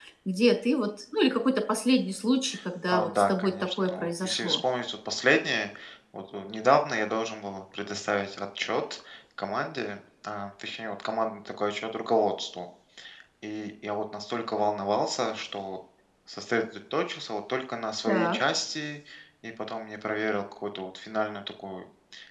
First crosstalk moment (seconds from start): 2.9 s

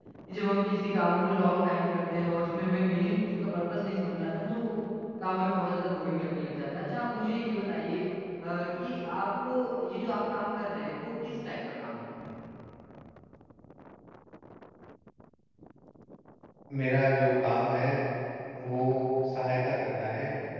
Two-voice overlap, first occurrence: none

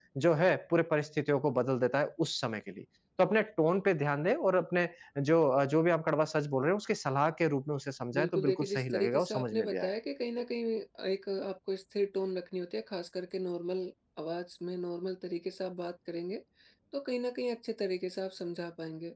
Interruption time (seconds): 8.1 s

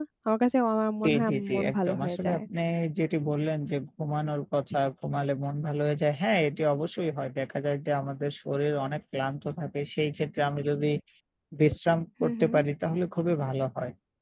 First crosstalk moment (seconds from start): 1.0 s

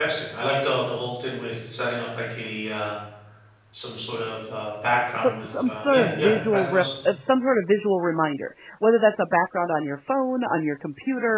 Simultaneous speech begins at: 5.2 s

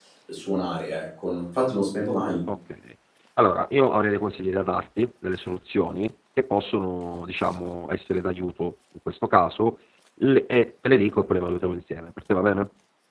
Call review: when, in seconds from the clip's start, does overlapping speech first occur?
none

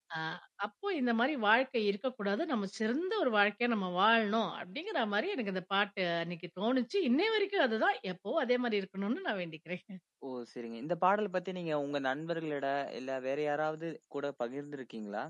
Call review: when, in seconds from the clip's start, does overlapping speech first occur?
none

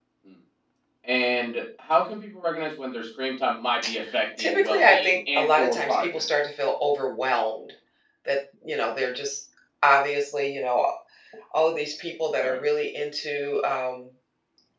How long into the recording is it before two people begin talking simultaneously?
4.4 s

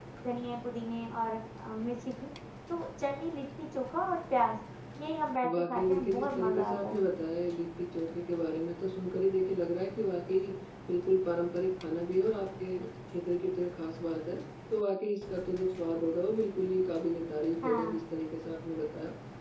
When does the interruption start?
5.5 s

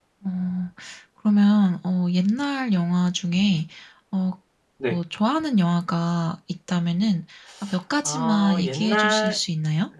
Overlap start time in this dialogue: 8.0 s

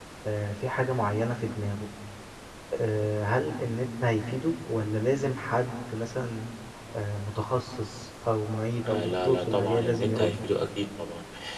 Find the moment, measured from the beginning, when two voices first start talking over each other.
8.8 s

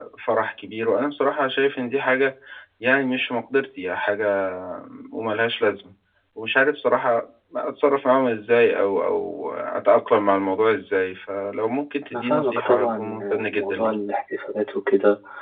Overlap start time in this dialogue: 12.1 s

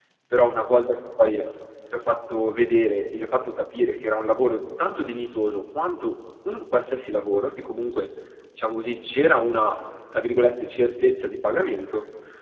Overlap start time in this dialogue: none

